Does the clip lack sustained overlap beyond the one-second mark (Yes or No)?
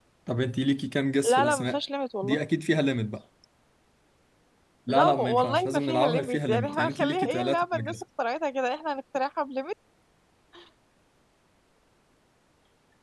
No